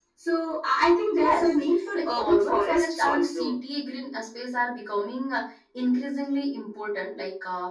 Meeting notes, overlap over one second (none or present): present